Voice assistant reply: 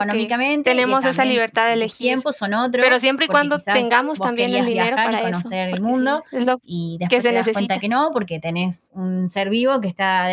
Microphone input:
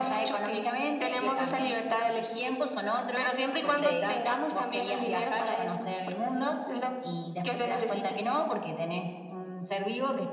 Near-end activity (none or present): present